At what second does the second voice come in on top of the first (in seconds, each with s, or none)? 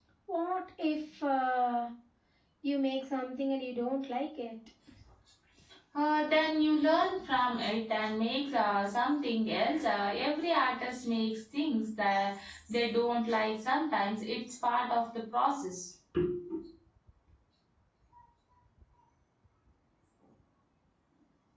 none